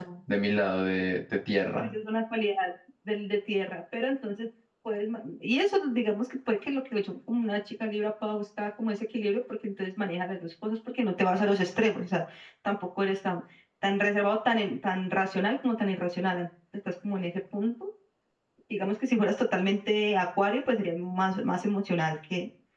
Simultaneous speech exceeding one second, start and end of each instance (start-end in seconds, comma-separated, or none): none